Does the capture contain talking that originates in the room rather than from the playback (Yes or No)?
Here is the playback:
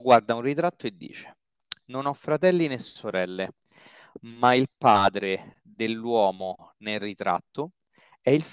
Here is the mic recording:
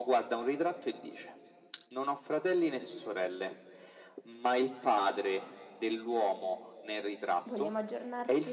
Yes